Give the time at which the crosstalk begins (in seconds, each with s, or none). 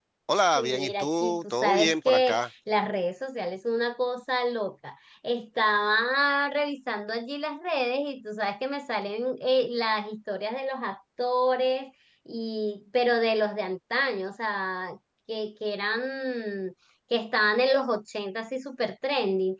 0.6 s